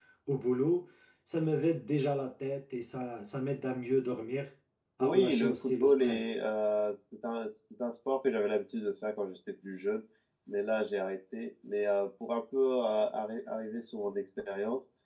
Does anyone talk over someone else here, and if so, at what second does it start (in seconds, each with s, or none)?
5.0 s